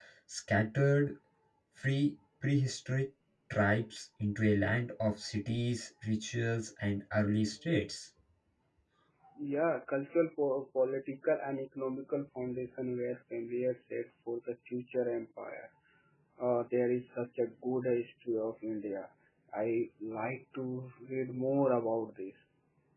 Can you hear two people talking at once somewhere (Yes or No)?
No